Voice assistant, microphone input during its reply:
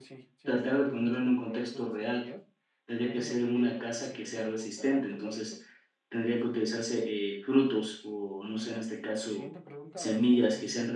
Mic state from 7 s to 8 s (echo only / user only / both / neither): user only